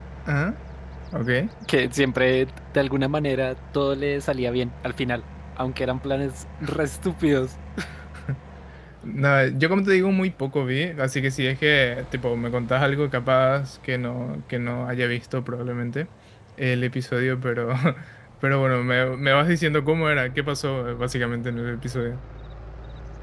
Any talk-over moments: No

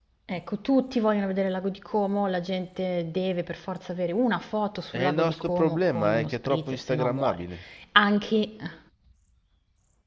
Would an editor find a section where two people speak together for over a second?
Yes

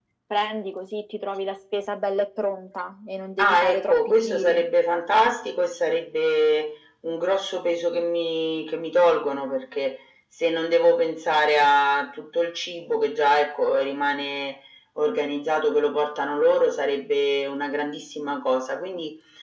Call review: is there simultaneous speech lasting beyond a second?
Yes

